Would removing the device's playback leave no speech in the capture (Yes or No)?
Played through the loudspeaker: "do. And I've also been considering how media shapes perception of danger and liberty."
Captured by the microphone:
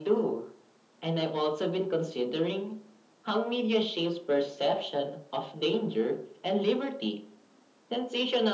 Yes